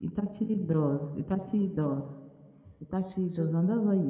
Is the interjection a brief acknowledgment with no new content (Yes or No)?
Yes